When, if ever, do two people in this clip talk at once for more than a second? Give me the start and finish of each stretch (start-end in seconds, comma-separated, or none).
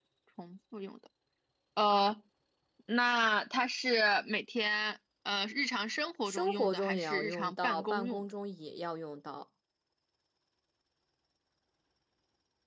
6.2-8.2